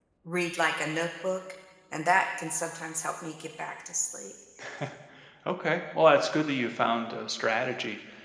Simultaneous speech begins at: none

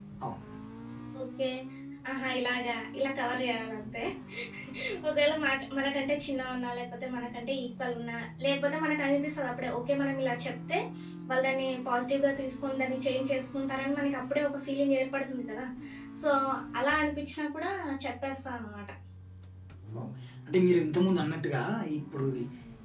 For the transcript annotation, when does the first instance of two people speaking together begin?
none

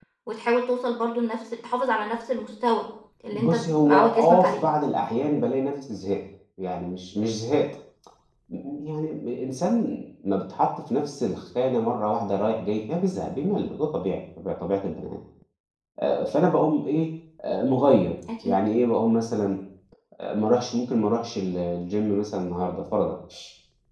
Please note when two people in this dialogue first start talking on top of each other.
3 s

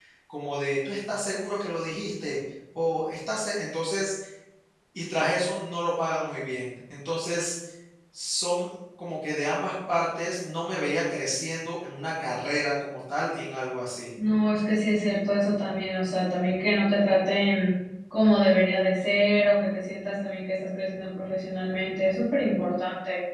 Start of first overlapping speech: none

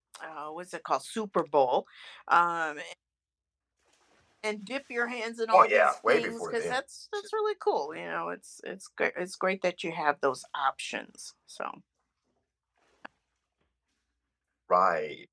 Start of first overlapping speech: 6 s

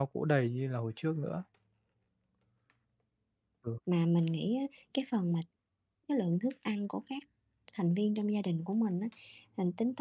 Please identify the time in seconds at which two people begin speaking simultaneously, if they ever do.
none

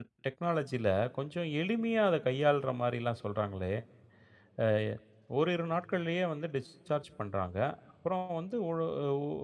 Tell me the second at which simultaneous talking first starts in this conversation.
none

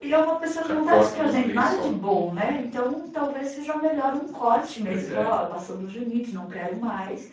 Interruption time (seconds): 1 s

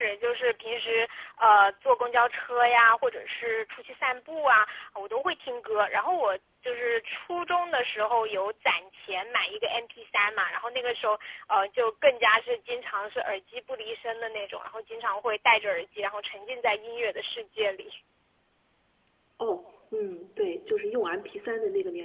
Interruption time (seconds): none

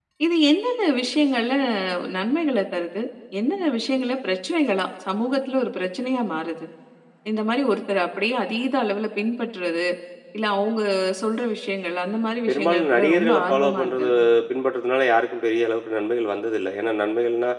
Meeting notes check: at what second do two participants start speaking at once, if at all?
12 s

